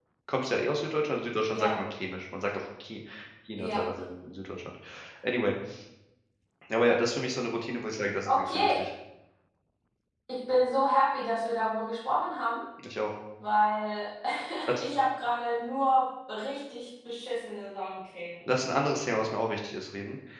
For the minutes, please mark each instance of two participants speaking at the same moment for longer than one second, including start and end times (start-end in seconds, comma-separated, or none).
none